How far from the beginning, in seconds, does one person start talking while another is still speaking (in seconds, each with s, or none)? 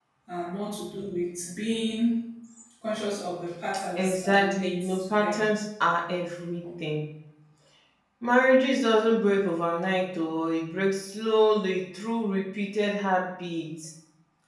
4.0 s